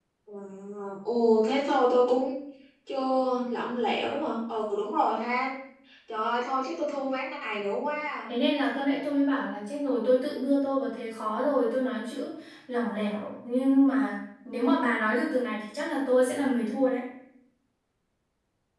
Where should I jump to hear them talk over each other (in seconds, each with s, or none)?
none